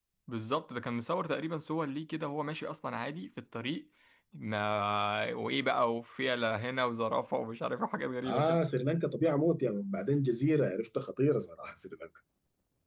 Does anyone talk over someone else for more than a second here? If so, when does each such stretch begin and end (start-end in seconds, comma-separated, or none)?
none